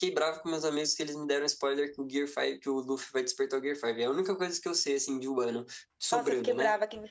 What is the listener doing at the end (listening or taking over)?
taking over